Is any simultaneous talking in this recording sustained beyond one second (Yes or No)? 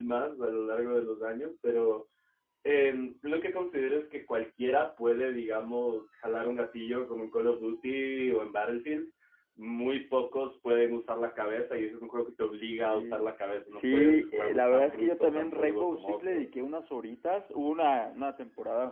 Yes